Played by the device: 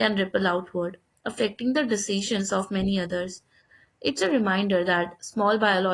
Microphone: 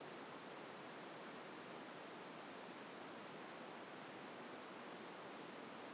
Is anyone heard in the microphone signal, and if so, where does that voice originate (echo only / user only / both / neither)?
neither